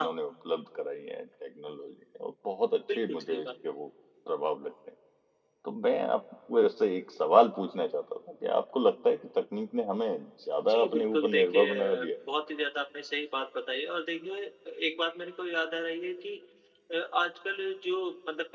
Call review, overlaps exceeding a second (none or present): present